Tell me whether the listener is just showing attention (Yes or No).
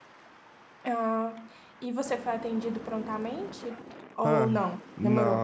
No